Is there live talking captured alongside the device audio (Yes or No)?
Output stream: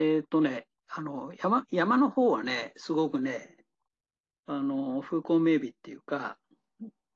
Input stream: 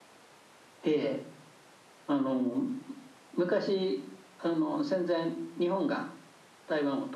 Yes